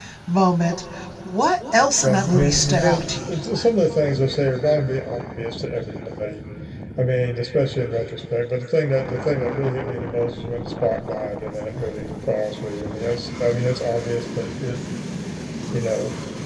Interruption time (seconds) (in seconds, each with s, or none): 2.0 s